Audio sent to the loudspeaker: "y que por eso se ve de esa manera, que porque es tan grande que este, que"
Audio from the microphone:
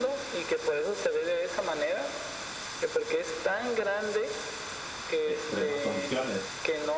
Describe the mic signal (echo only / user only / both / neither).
both